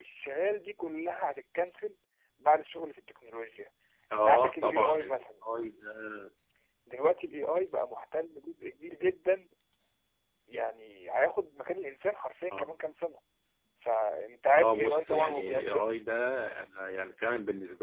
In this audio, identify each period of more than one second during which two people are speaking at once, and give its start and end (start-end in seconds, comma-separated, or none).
4.1-5.4, 14.6-15.8